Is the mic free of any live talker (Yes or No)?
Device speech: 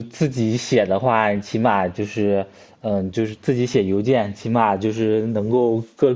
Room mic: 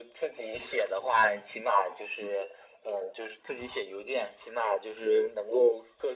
Yes